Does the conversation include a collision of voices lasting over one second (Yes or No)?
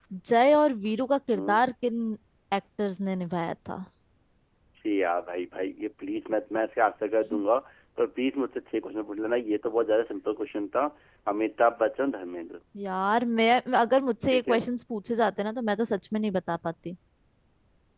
No